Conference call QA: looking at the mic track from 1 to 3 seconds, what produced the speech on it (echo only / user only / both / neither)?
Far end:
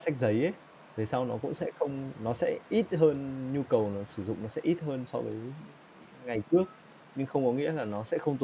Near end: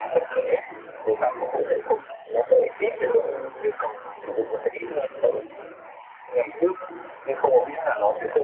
echo only